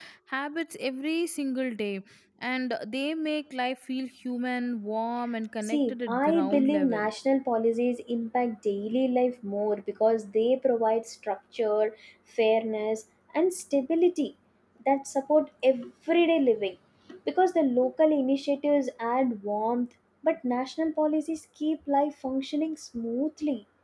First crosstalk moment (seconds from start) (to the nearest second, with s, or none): 6 s